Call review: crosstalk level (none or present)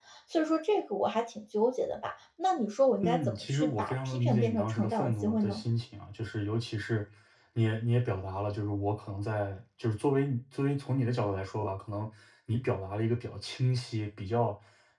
present